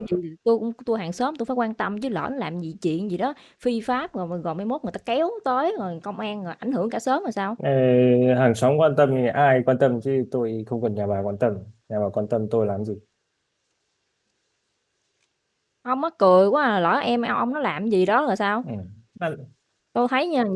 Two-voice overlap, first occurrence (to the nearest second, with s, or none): none